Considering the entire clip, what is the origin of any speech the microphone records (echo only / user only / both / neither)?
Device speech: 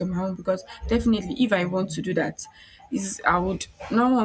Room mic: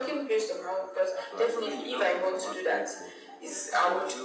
both